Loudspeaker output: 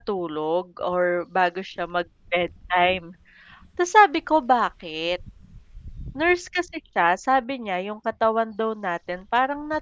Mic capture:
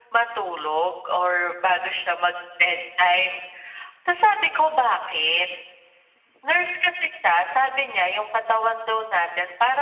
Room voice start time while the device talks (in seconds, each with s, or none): none